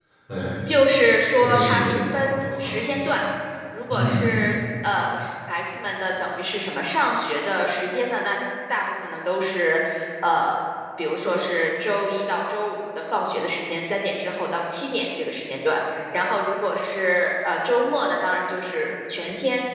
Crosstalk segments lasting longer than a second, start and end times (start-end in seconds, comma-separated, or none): 1.4-3.0